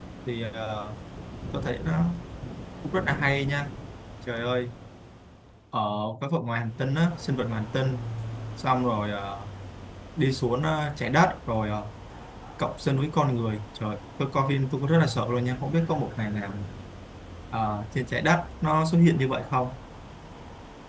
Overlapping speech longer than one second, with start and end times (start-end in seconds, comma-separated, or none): none